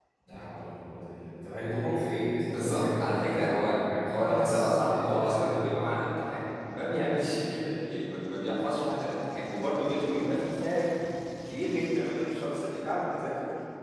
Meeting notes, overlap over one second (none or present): present